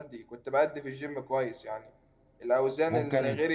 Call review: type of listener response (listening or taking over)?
listening